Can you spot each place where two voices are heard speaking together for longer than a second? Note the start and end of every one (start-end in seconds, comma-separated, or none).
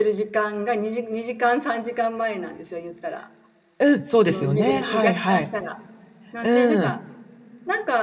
4.2-5.5